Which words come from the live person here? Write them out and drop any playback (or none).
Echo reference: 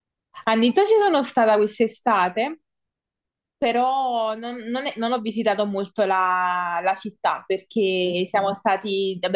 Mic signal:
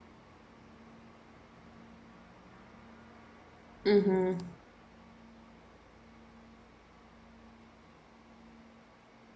Mhm,